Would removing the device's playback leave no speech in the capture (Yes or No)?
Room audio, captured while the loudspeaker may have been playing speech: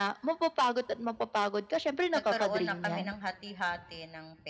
No